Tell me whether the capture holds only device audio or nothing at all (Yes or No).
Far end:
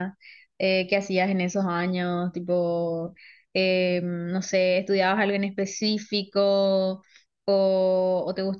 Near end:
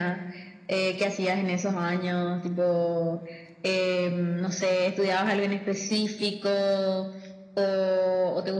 Yes